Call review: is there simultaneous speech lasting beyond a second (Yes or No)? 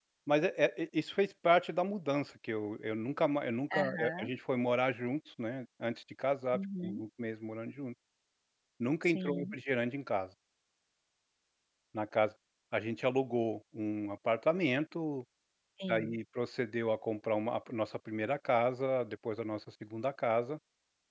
No